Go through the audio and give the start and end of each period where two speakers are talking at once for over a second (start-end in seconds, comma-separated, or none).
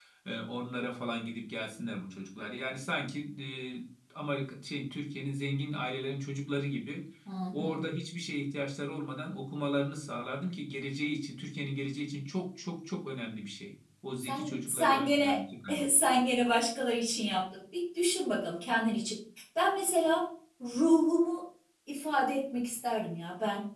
14.2-15.4